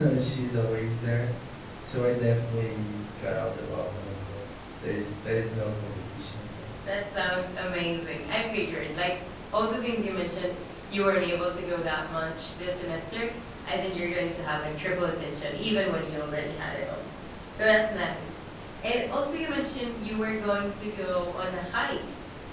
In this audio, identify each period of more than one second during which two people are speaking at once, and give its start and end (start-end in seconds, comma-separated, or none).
none